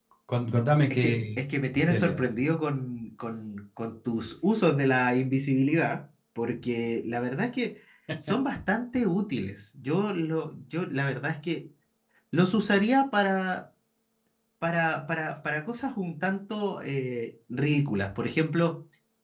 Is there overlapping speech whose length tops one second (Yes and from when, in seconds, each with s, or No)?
No